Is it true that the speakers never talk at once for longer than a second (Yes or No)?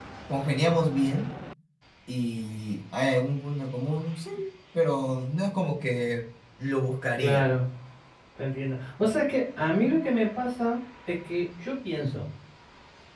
Yes